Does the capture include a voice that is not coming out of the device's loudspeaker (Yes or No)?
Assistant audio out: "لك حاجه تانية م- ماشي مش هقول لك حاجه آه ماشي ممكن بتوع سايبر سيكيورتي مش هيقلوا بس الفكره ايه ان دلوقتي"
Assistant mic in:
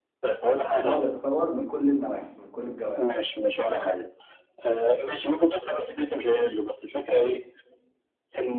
Yes